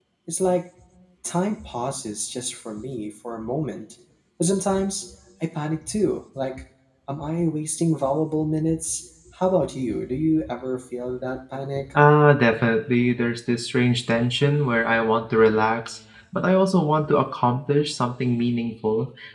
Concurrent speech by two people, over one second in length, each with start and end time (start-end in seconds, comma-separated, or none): none